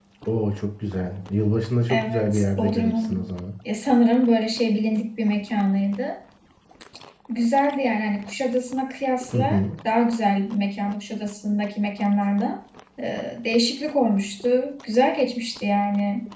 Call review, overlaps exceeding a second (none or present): present